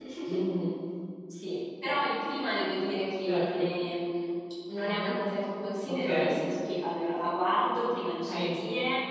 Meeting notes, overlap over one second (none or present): none